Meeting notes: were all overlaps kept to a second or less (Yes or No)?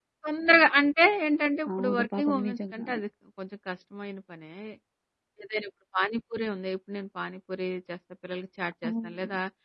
No